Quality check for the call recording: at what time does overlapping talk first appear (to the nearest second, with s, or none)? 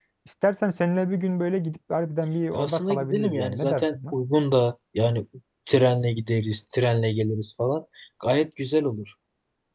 3 s